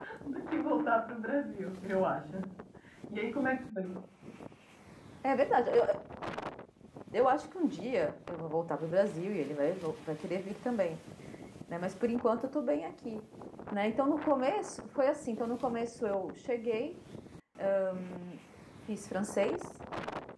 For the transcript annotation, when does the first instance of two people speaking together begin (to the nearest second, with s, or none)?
none